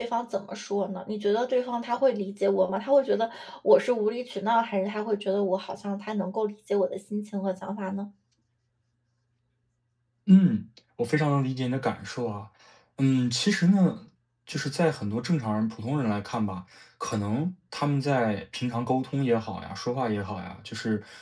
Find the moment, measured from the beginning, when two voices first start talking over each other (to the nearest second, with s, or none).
none